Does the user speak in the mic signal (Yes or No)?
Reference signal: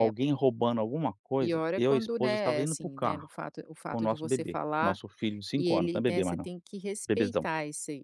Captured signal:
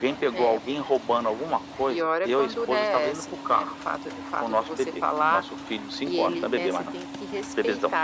No